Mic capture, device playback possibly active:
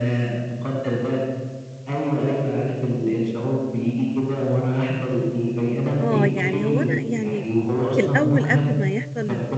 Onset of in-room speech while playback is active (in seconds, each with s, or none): 6.0 s